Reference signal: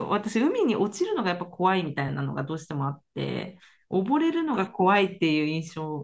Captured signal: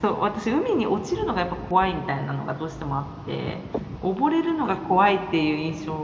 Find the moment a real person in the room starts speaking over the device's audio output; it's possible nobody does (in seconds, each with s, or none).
none